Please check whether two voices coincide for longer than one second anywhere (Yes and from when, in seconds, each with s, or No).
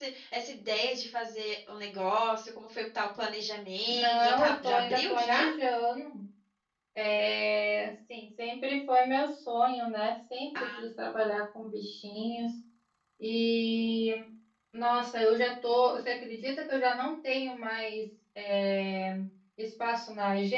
Yes, from 3.9 s